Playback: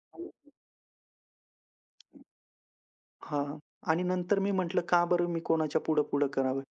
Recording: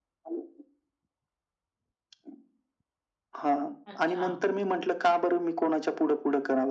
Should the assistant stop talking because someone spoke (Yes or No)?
Yes